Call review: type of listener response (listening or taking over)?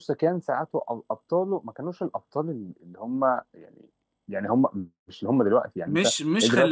taking over